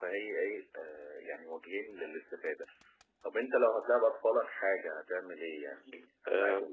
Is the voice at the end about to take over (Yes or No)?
Yes